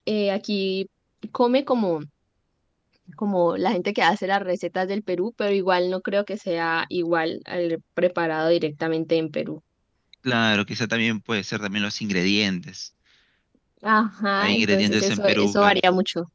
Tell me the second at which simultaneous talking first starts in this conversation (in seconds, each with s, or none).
14.4 s